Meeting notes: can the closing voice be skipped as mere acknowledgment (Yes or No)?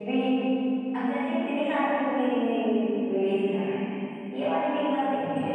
Yes